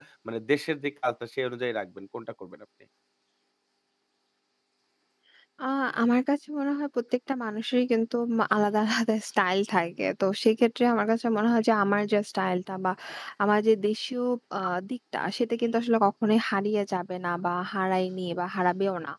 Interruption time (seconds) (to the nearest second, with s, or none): none